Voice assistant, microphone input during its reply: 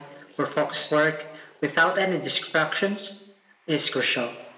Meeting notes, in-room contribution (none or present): none